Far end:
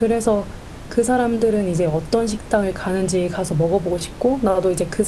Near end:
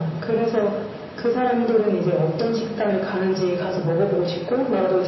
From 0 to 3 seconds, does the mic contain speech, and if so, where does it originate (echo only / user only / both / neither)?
echo only